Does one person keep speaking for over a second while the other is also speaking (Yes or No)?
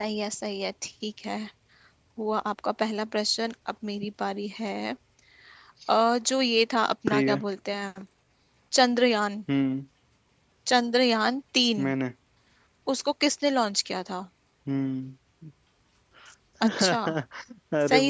No